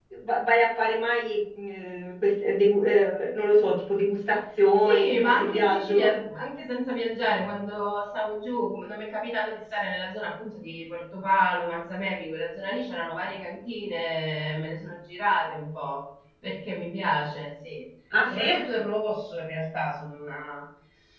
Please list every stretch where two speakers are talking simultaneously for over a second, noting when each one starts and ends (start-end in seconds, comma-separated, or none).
4.8-6.1